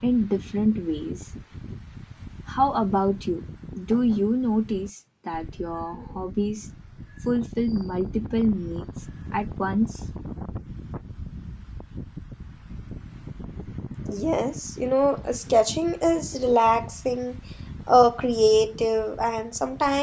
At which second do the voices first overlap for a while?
none

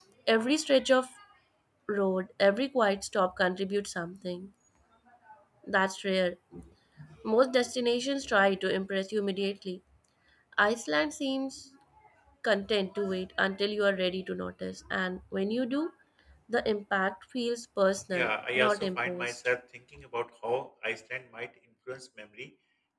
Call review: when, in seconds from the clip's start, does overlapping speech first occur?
18.1 s

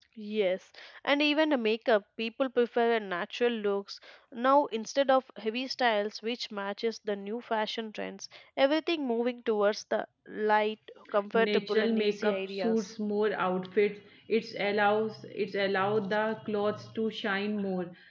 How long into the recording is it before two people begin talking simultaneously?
11.3 s

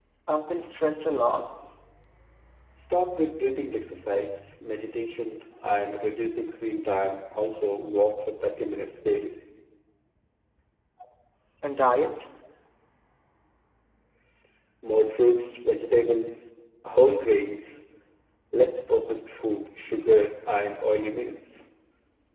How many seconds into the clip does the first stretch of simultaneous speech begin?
none

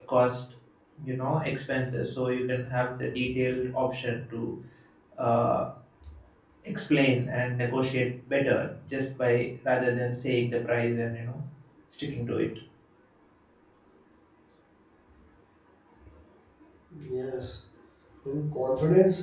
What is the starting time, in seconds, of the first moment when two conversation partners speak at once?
none

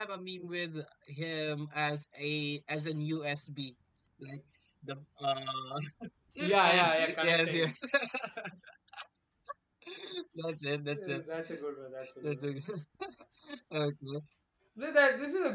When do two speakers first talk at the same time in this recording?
6.4 s

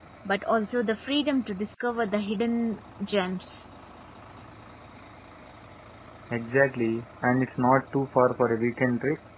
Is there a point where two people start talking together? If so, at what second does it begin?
none

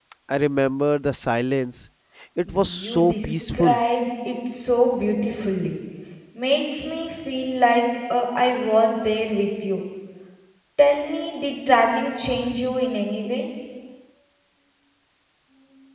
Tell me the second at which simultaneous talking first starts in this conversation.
2.5 s

